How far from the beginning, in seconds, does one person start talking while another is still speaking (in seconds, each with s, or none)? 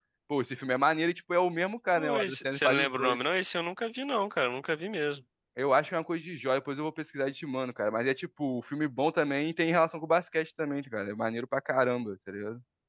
2.0 s